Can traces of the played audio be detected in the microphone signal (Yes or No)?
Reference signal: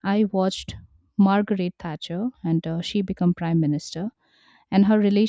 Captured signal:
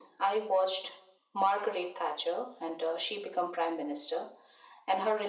Yes